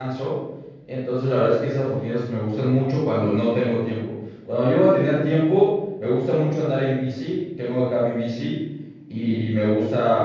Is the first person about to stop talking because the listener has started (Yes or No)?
No